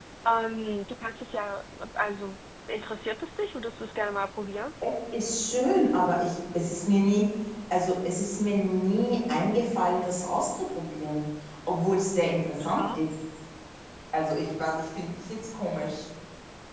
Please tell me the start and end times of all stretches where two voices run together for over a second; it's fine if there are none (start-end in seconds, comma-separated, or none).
none